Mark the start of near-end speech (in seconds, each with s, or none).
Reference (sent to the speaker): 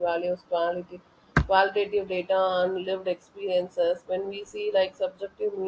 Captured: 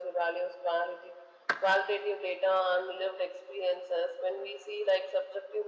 none